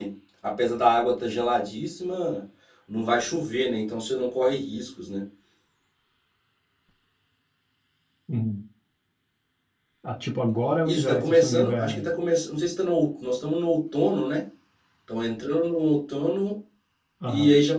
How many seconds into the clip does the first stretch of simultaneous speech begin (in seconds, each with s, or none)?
10.8 s